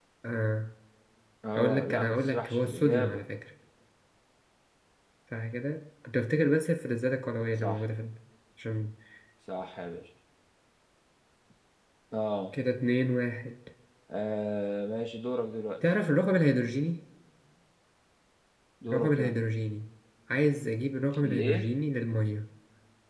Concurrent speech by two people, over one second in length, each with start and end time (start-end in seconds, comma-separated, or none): 1.6-3.2